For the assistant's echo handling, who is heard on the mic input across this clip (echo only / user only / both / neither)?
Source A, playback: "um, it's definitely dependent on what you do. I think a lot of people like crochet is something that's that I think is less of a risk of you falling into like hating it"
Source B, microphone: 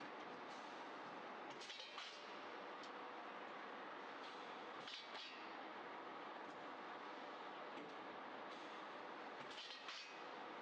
neither